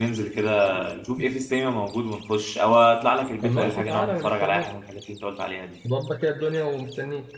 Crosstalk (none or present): present